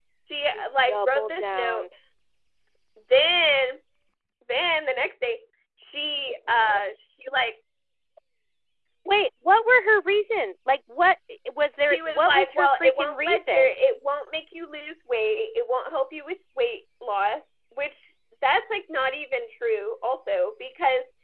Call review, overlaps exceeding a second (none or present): present